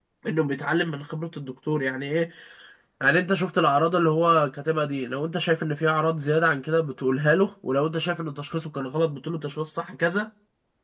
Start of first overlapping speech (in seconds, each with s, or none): none